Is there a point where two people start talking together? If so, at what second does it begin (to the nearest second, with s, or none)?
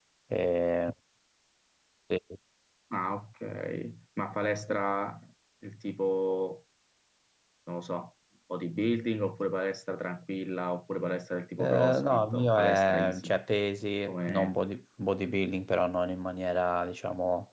12 s